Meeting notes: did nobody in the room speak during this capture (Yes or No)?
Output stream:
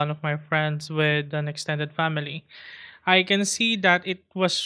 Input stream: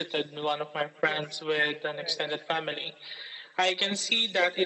No